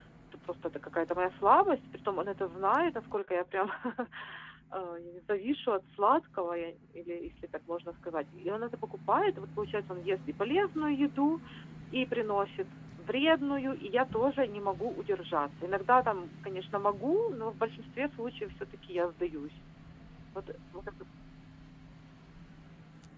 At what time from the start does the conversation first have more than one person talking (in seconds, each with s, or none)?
none